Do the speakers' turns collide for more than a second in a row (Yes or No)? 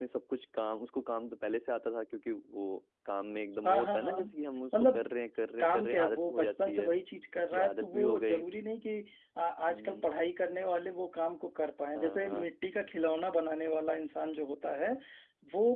Yes